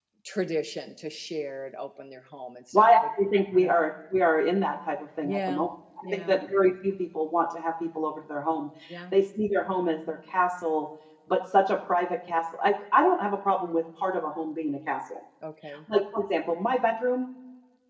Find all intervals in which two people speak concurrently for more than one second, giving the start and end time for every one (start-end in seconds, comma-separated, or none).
none